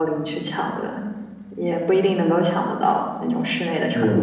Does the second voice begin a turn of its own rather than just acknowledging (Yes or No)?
Yes